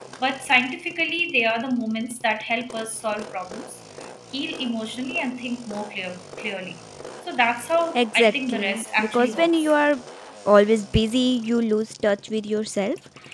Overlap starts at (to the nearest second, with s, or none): 8 s